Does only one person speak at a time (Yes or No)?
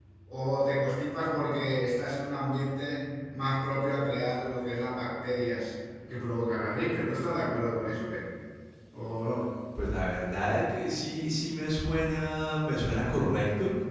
Yes